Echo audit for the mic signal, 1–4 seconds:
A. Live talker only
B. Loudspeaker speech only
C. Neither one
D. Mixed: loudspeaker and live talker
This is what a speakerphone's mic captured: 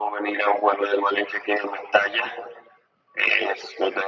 B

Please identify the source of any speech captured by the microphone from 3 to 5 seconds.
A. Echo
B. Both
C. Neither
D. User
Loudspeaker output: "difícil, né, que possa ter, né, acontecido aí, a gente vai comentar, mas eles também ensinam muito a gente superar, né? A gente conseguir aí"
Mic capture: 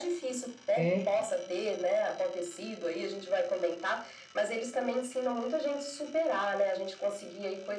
A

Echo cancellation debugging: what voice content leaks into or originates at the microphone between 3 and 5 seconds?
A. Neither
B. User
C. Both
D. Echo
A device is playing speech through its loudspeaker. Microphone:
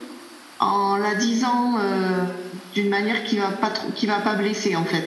D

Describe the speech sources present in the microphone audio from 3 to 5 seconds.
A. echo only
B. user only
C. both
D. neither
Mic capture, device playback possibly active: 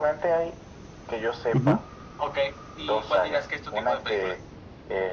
A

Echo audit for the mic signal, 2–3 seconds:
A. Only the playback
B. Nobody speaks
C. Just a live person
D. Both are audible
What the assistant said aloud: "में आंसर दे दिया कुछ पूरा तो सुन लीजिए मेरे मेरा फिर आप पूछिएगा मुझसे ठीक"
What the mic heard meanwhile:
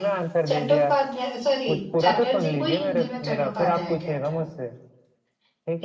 D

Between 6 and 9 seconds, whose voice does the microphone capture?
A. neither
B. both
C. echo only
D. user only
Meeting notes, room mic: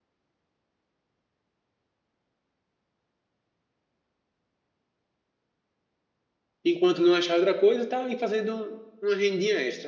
D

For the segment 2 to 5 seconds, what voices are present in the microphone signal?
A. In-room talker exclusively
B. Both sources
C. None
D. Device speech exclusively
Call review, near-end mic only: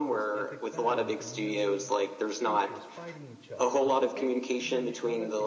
B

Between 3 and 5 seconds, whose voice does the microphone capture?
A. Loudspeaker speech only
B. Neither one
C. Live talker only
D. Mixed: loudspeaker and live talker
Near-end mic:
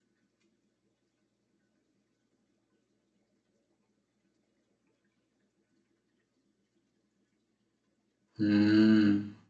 B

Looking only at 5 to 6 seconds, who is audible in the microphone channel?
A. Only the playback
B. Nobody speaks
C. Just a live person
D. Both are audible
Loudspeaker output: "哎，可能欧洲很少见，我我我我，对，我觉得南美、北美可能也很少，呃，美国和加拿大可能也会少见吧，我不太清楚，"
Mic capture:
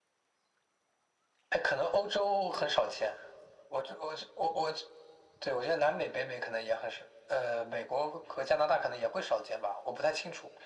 A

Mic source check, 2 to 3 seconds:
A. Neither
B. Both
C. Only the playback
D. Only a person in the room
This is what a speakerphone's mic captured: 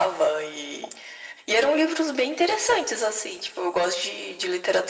C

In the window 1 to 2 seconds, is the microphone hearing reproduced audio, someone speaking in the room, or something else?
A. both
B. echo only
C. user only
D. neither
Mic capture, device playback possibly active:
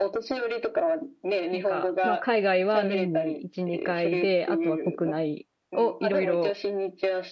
A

